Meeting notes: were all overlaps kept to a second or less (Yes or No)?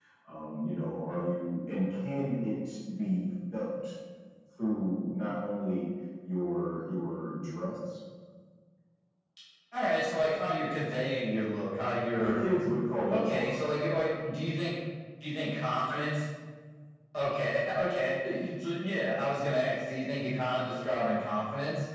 Yes